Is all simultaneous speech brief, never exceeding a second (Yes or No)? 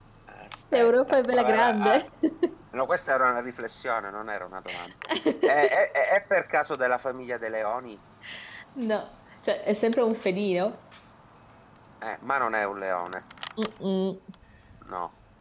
No